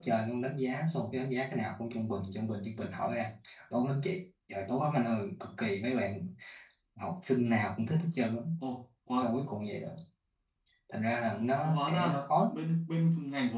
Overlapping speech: Yes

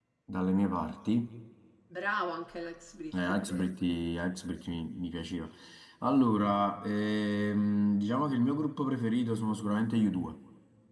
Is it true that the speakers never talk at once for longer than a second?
Yes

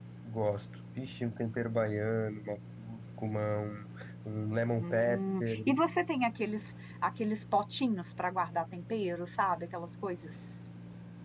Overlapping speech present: Yes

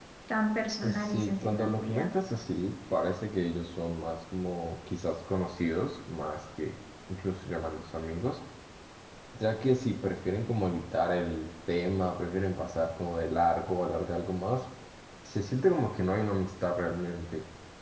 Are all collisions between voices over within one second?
No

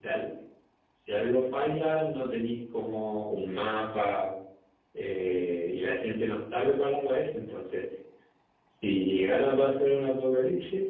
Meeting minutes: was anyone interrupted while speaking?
No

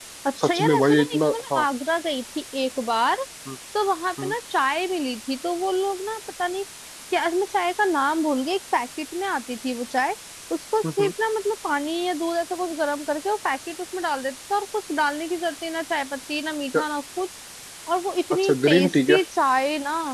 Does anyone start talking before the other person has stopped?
Yes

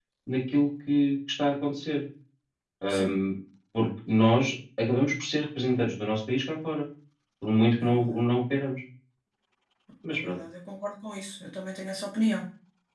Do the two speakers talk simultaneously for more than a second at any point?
No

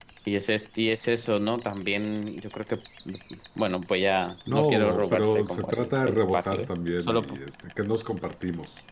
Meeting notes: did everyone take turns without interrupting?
No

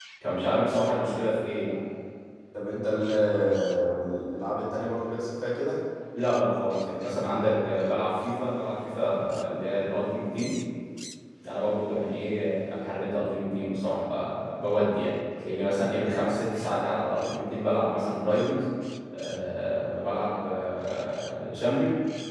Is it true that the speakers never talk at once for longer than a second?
Yes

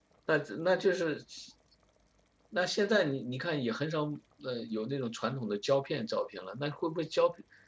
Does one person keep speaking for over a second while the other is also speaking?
No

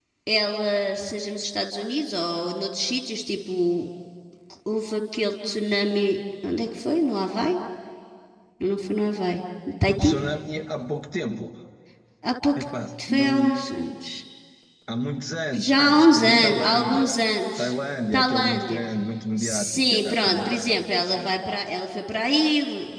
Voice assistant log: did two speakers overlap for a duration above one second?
Yes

